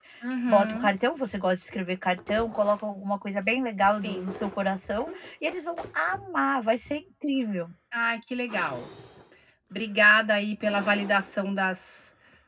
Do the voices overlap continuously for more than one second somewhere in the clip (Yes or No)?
No